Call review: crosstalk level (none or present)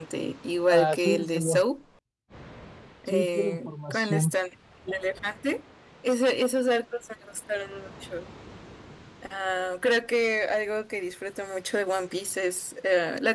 present